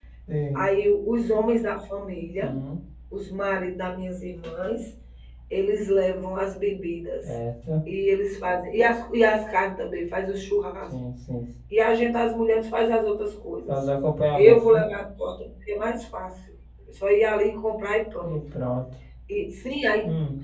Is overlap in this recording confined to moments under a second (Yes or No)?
Yes